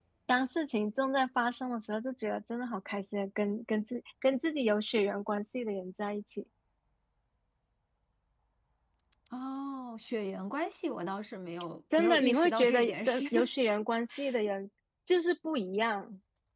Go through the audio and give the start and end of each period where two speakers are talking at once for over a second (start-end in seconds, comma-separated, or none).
12.0-13.2